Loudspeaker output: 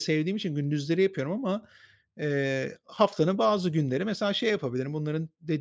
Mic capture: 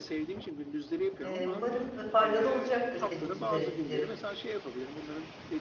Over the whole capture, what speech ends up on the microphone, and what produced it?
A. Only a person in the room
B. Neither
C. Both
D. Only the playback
C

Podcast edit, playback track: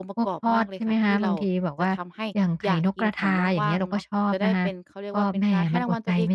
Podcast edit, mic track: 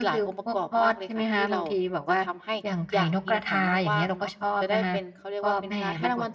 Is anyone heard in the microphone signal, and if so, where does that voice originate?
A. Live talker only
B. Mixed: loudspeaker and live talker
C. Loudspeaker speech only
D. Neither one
C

